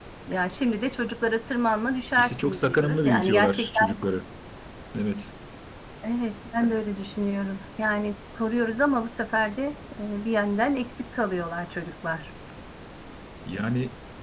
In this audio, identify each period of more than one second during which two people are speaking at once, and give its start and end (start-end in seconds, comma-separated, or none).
2.2-3.8